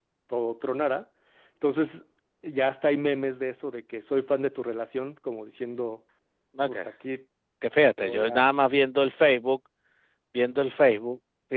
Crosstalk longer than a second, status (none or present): none